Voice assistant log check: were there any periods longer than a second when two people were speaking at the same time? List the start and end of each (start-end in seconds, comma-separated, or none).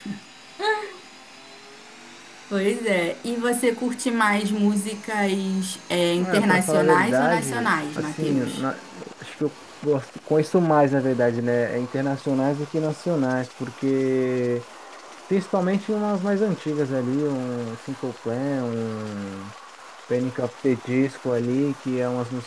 6.2-8.6